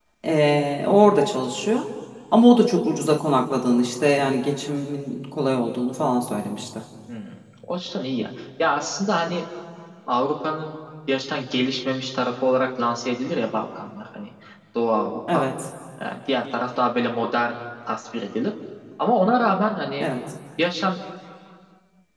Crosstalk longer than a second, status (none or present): none